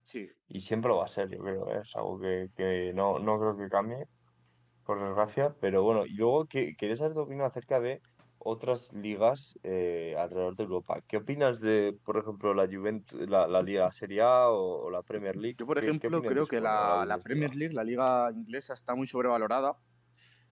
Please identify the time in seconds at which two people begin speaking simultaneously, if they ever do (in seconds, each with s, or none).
15.6 s